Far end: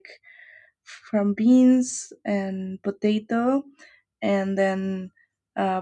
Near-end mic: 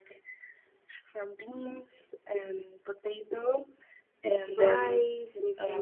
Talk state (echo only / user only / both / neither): both